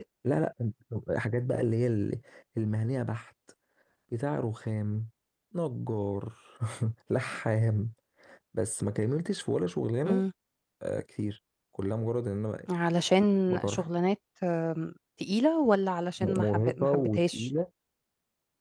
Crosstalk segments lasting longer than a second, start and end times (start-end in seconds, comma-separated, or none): 16.2-17.5